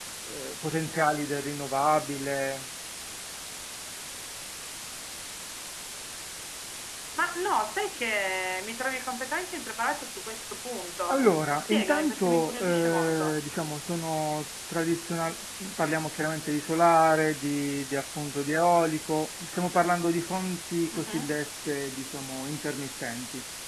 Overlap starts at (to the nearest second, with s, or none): 11 s